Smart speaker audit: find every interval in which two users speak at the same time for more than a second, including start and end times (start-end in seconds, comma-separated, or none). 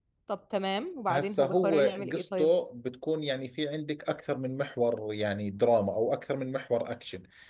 1.1-2.5